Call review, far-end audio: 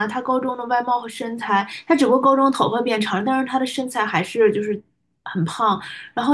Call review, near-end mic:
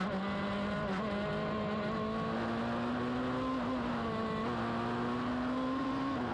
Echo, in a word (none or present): none